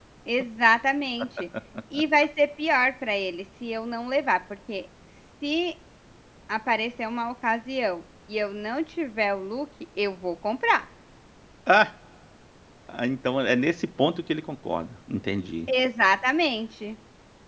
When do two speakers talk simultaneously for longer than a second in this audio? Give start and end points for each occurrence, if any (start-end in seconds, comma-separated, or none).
none